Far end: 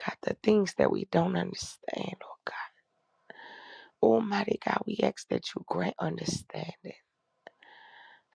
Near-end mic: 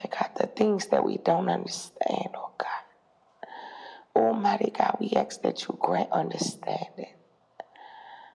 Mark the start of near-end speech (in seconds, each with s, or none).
none